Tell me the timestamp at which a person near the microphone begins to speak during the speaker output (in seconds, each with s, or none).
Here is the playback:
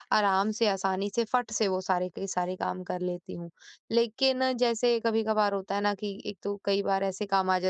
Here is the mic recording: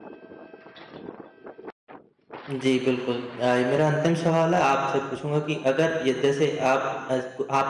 2.5 s